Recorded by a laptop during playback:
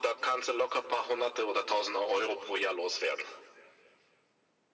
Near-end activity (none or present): none